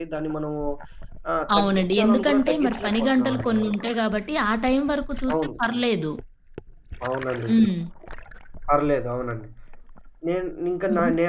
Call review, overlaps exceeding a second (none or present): present